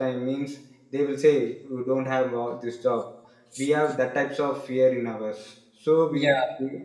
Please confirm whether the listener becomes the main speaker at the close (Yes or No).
No